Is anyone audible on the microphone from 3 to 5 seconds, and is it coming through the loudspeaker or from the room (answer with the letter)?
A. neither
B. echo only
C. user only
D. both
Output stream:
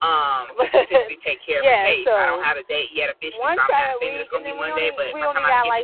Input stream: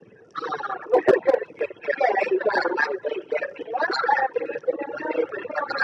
B